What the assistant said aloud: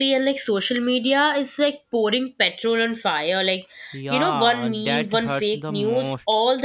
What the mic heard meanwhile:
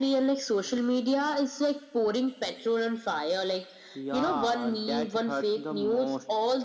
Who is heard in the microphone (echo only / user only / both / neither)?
echo only